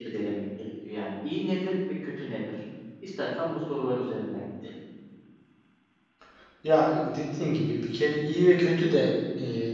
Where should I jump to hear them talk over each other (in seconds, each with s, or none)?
none